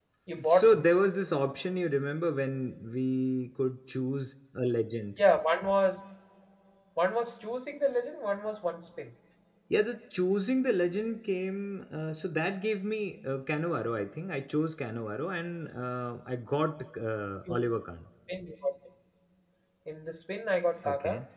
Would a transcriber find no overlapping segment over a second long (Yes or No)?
Yes